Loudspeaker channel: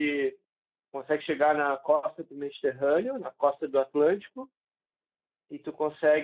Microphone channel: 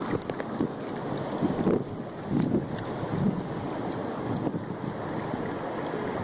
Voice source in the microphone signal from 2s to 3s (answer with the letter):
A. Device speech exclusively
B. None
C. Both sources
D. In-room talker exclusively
B